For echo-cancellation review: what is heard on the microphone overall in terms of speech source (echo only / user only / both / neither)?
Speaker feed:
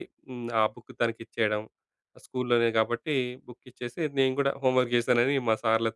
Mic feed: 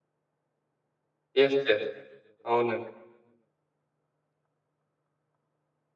user only